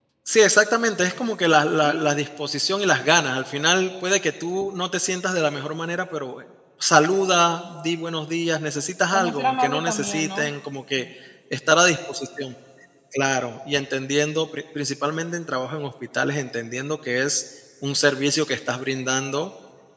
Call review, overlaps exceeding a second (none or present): present